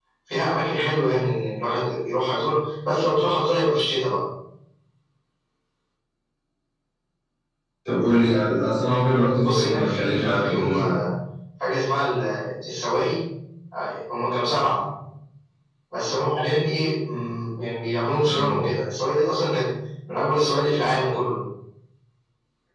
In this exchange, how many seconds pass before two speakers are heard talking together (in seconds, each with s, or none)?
9.4 s